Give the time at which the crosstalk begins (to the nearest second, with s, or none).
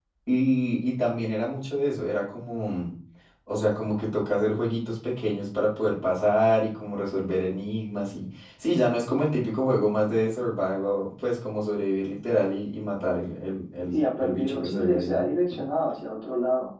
14 s